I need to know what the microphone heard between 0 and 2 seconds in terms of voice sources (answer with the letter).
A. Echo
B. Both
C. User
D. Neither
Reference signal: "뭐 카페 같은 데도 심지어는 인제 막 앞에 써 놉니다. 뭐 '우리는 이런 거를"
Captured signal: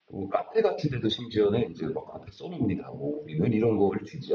A